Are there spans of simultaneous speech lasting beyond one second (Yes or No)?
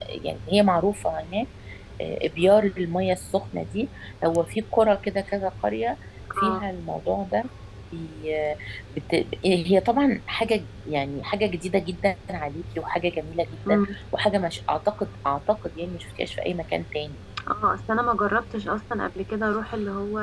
No